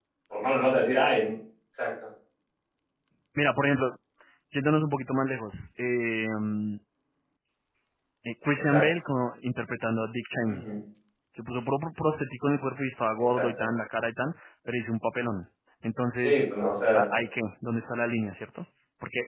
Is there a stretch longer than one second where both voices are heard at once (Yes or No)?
No